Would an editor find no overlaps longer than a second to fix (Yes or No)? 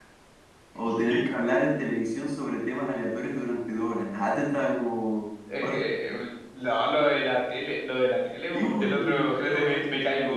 No